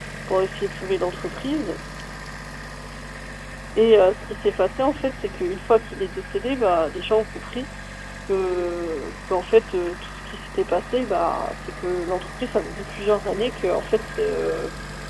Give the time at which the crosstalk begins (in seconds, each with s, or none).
none